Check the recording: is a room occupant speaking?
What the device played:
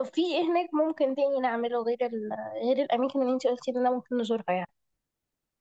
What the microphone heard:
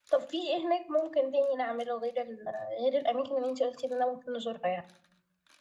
No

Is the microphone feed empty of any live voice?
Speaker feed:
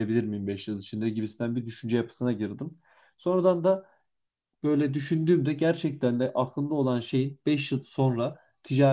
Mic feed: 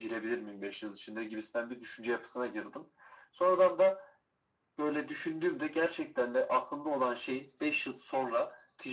Yes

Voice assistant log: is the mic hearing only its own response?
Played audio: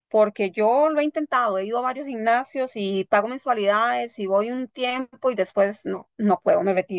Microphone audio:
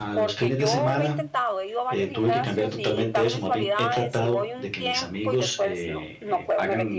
No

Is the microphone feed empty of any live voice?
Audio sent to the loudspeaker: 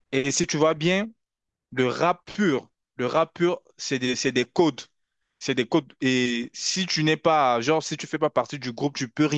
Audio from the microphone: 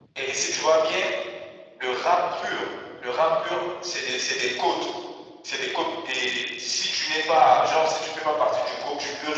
Yes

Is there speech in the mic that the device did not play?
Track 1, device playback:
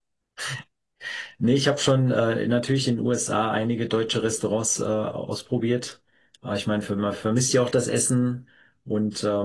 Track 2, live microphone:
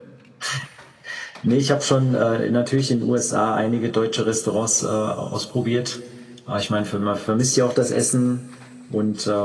No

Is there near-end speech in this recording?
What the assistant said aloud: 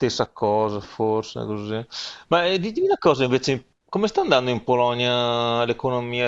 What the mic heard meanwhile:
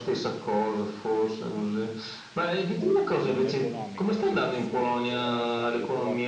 Yes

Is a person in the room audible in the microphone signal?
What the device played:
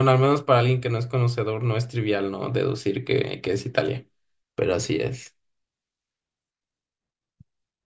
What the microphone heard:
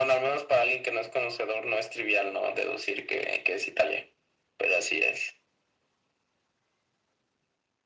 No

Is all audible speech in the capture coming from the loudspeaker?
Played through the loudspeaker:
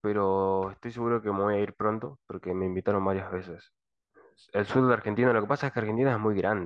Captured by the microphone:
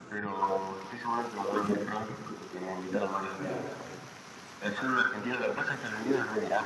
No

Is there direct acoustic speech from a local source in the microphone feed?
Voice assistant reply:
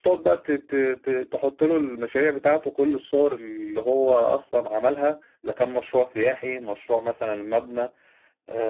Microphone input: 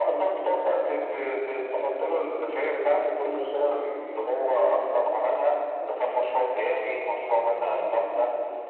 Yes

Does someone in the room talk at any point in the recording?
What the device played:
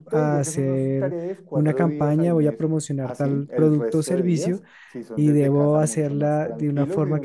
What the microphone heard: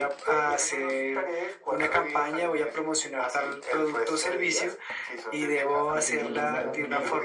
Yes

